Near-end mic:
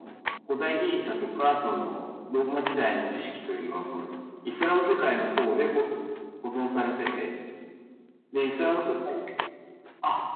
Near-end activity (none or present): none